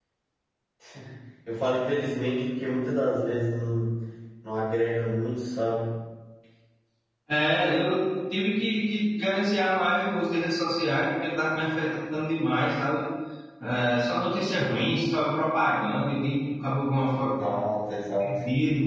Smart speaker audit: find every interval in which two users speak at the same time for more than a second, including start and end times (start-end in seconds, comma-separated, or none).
none